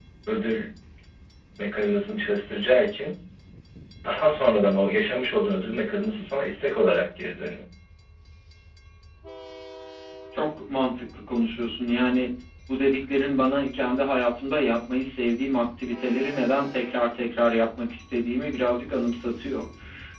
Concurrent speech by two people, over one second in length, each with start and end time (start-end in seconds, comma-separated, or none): none